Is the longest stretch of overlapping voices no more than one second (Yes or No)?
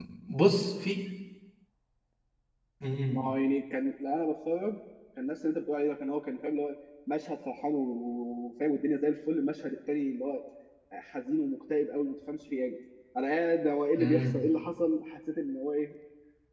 Yes